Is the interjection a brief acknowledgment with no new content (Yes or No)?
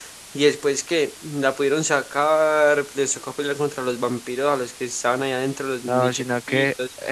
No